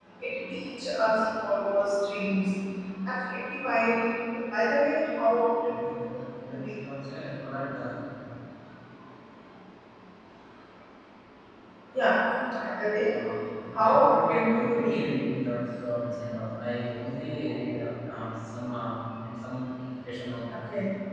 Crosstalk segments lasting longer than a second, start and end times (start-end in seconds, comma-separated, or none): 13.7-15.0